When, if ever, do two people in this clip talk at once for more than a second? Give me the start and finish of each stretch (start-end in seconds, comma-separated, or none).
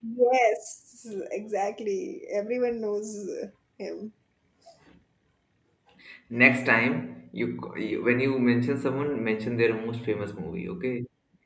none